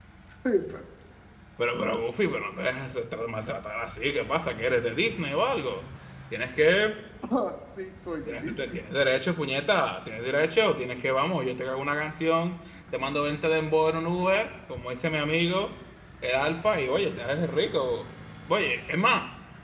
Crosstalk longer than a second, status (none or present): none